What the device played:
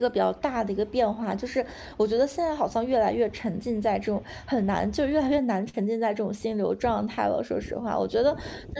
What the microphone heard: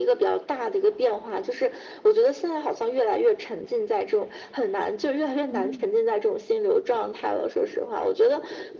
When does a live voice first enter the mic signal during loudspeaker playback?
5.5 s

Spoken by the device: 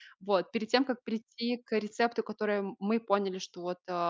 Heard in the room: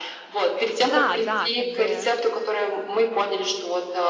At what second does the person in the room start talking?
0.8 s

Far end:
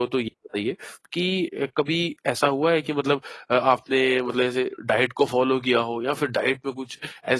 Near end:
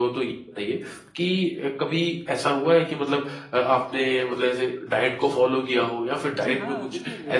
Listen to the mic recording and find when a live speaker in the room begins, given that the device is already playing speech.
6.4 s

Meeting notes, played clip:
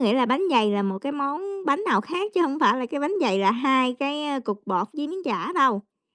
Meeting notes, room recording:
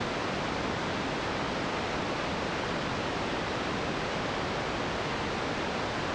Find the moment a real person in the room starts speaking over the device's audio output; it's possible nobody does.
none

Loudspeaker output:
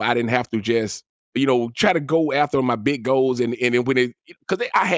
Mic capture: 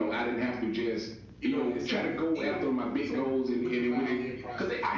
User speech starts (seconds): 1.4 s

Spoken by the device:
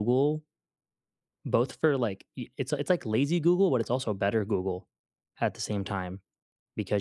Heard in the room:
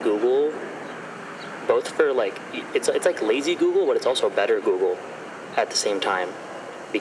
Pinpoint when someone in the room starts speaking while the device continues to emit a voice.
none

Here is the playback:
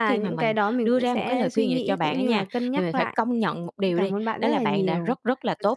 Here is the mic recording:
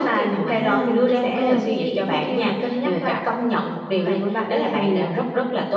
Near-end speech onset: 0.4 s

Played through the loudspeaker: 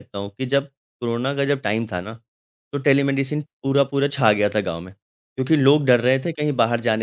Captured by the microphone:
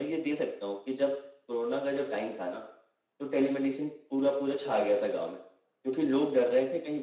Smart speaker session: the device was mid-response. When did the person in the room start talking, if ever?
none

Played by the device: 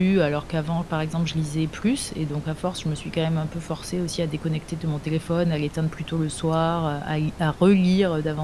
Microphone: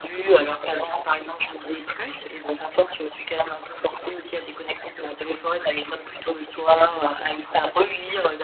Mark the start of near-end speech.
none

